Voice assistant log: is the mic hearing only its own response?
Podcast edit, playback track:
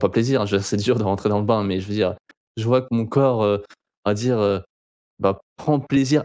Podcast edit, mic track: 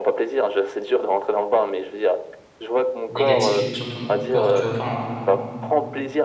No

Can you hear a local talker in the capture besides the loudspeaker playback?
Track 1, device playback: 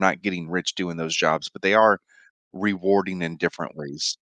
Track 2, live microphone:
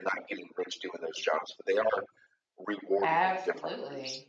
Yes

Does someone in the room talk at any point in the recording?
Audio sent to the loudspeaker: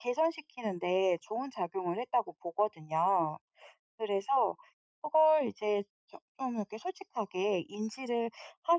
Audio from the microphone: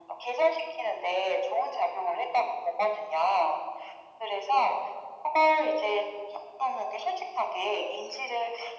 No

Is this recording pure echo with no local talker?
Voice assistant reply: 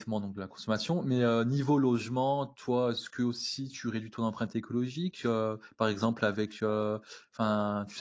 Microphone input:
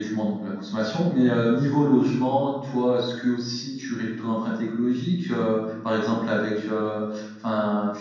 Yes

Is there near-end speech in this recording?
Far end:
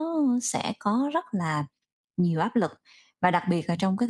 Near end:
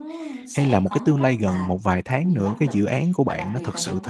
Yes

